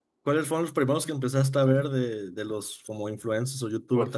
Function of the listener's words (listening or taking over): taking over